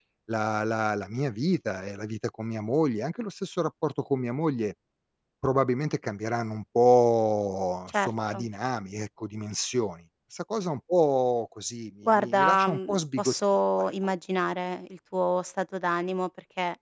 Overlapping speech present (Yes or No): Yes